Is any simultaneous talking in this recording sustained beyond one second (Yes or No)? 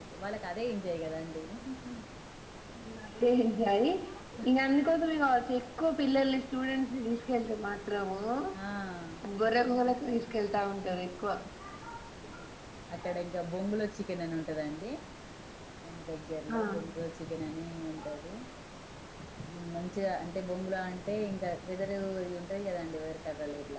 No